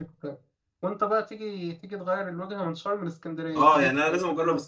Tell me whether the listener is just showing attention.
No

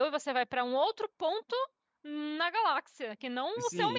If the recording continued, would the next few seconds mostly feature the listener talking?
Yes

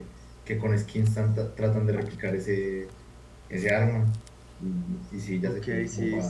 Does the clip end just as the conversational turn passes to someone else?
Yes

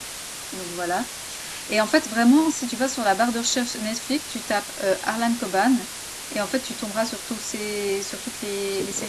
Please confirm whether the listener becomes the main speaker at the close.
Yes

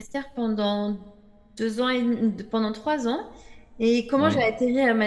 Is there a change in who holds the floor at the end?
No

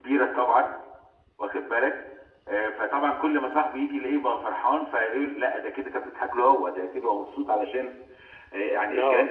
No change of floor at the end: Yes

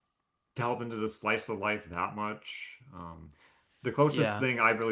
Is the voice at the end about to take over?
No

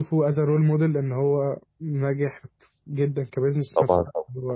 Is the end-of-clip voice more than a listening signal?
Yes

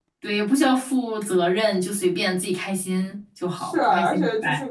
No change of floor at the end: No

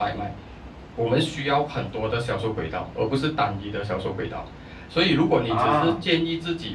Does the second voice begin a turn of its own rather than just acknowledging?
No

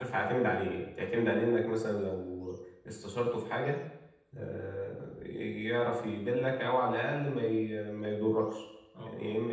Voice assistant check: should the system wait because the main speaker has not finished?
Yes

